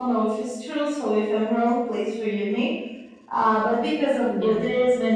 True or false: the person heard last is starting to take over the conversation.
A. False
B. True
A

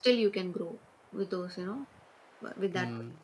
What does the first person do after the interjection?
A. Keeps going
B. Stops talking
B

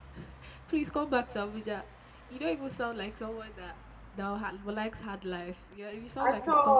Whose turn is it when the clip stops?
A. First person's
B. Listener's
B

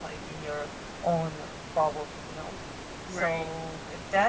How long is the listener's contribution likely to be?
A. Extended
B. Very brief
B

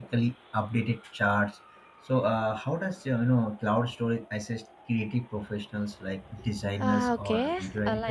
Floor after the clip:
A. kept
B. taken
B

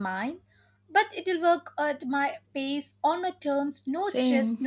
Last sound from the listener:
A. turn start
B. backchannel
A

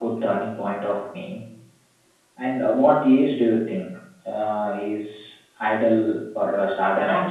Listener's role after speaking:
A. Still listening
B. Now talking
B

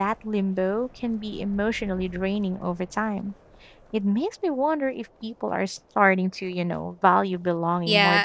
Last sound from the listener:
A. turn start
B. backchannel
A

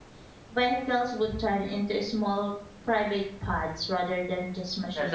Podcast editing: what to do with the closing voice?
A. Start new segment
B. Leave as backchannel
A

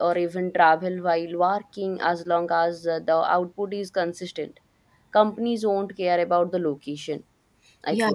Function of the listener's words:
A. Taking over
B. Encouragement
A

